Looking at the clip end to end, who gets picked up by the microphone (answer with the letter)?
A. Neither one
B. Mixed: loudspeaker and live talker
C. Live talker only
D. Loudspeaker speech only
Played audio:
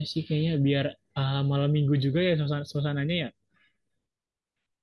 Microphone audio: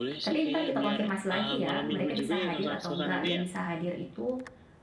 B